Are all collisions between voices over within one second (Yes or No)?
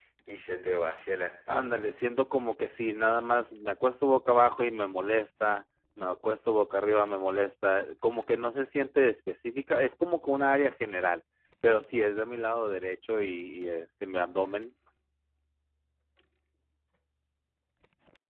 Yes